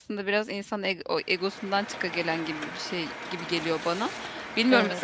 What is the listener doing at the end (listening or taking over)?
listening